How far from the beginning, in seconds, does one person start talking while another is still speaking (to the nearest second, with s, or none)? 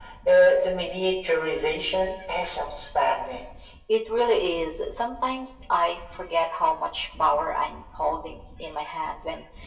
none